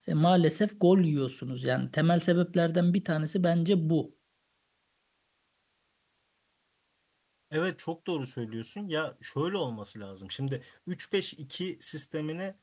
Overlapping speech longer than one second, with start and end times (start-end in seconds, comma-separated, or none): none